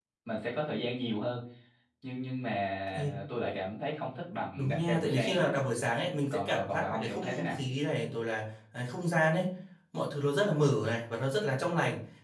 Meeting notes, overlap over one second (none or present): present